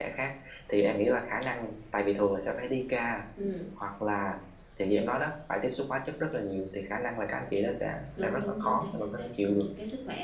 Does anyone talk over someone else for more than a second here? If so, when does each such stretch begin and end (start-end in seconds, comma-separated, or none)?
8.2-9.7